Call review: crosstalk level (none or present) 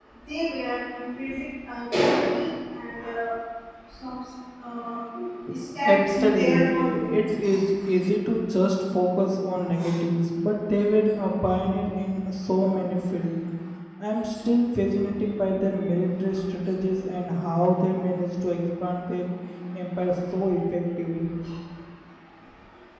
present